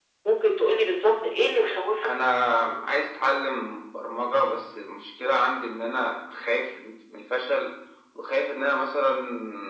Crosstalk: none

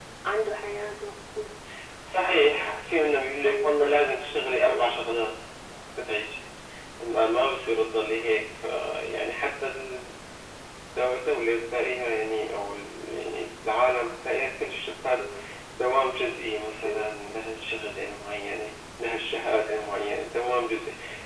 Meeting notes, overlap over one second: none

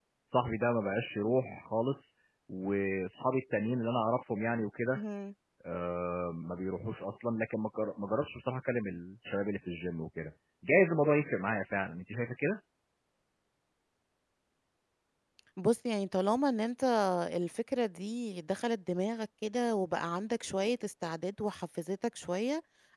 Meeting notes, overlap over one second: none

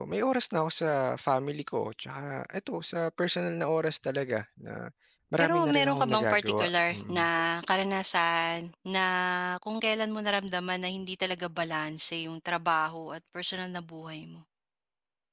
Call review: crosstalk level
present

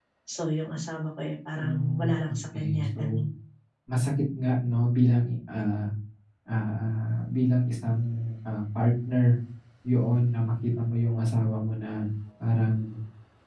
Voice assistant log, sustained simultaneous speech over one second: present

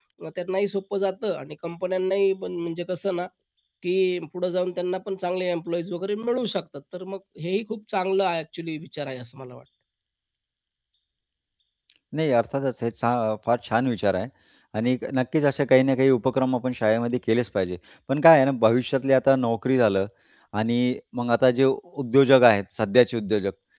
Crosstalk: none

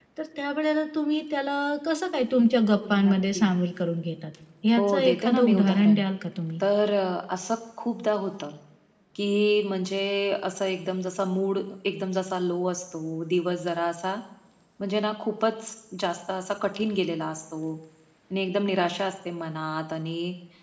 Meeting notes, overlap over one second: present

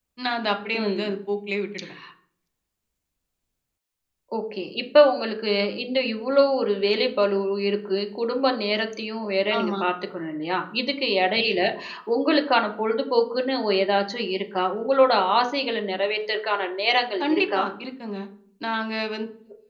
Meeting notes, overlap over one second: none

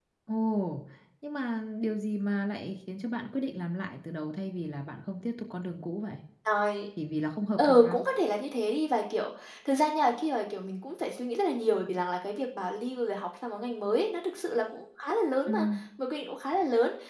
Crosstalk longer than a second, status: none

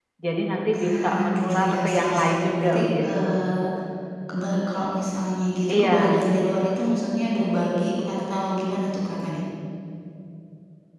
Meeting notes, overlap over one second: present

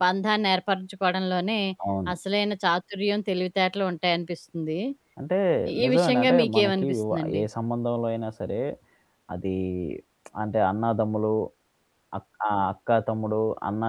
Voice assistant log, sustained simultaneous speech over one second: present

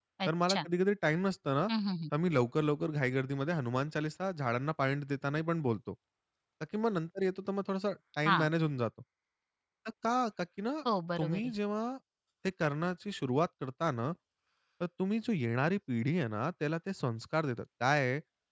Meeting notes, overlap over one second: none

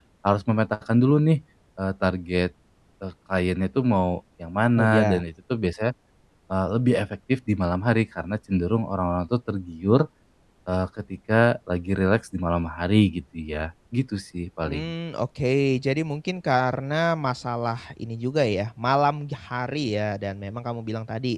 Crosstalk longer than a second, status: none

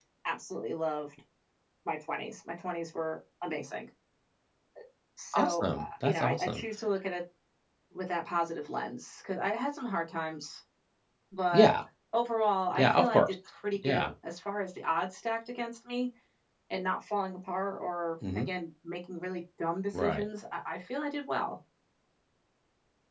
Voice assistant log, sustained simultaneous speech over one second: present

